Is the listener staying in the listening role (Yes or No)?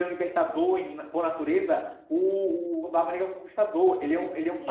No